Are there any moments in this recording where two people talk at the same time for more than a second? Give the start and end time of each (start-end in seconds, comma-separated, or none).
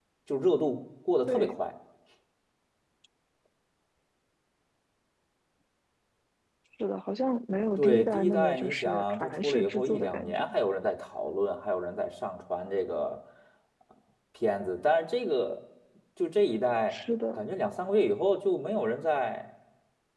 7.8-10.5